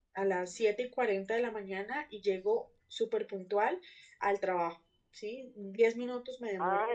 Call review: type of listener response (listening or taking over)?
taking over